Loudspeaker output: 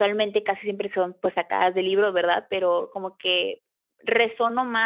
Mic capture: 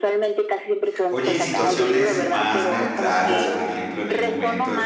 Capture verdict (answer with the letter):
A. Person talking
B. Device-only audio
A